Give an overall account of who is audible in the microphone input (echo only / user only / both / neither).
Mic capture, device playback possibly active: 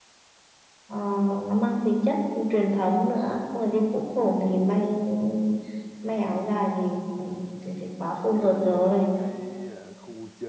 both